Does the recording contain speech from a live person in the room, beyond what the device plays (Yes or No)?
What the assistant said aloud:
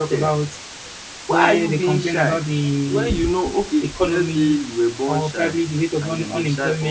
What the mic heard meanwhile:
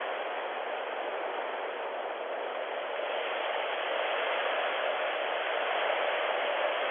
No